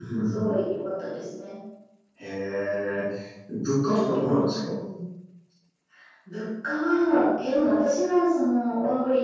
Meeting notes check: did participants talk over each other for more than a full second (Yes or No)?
No